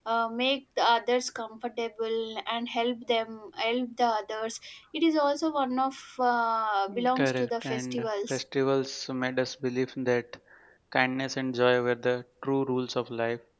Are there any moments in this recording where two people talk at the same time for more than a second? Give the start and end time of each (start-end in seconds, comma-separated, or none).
6.9-8.4